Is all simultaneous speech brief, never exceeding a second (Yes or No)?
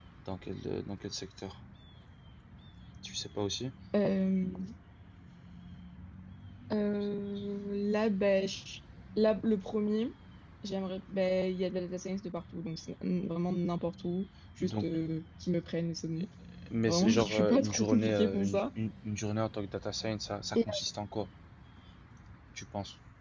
No